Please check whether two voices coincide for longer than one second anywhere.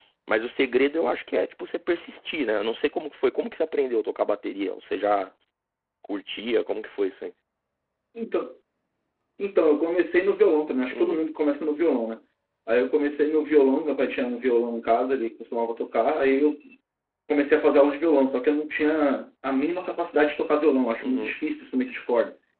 No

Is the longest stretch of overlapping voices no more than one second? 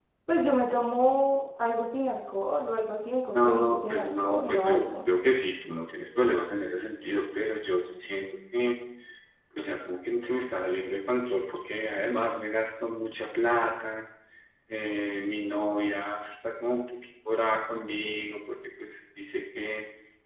No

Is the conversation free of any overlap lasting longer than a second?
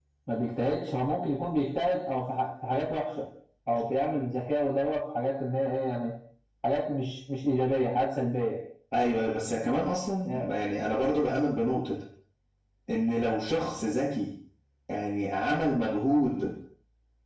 Yes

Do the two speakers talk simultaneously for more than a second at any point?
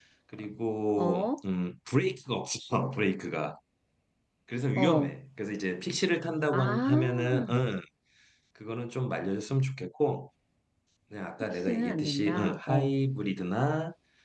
Yes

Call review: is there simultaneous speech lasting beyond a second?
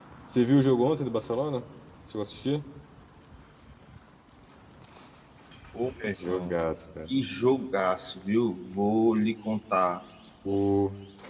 No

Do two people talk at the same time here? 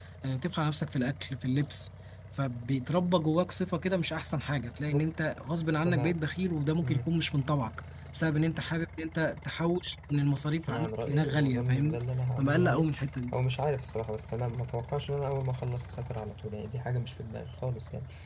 Yes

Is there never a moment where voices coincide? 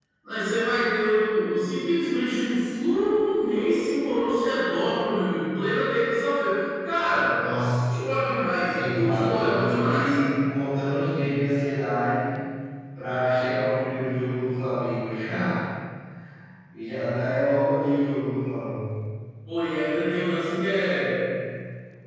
No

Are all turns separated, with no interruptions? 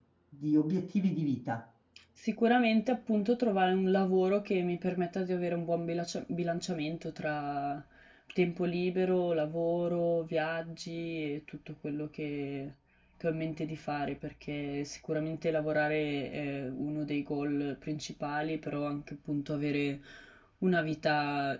Yes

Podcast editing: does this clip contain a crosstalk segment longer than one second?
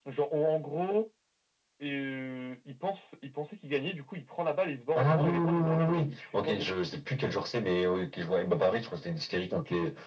Yes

